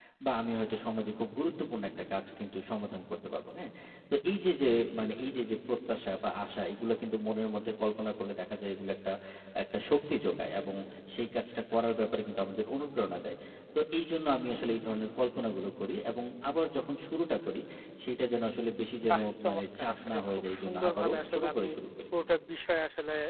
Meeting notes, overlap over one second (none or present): present